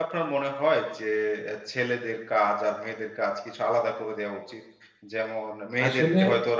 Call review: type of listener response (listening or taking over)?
listening